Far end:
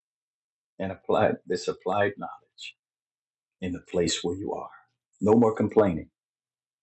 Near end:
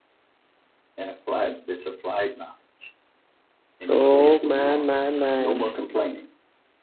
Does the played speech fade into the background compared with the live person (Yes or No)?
Yes